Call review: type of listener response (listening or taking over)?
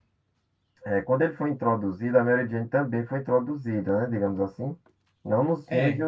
listening